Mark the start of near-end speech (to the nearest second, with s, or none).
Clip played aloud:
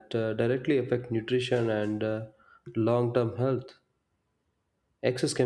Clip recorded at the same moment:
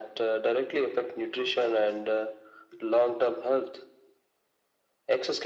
none